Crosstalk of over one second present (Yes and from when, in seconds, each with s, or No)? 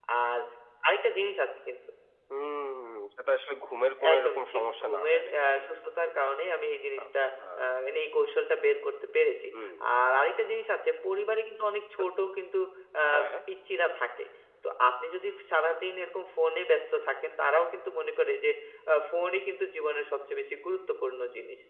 Yes, from 4.1 s